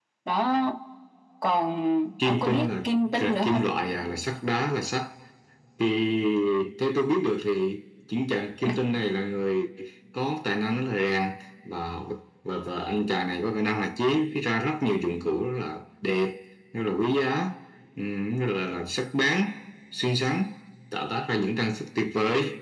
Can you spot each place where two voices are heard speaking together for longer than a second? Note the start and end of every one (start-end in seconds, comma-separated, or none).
2.2-3.7